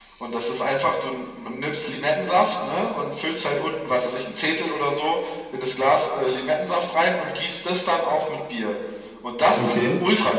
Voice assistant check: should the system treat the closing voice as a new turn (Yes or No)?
No